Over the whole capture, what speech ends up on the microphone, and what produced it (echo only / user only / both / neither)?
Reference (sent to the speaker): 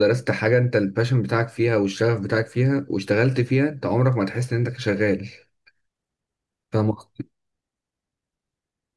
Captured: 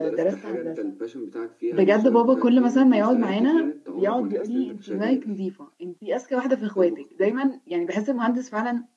both